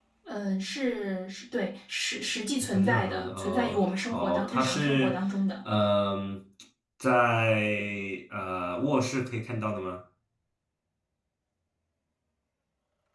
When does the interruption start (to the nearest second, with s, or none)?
3 s